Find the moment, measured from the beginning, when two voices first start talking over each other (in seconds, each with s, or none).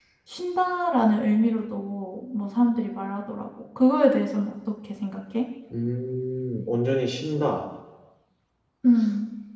none